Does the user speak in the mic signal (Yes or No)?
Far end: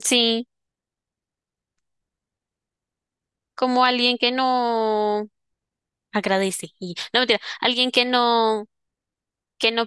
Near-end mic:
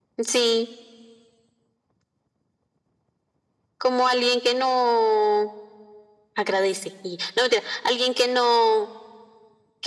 No